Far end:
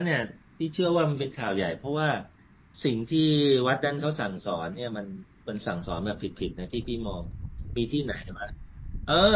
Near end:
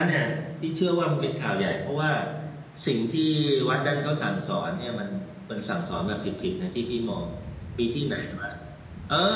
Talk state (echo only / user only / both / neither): echo only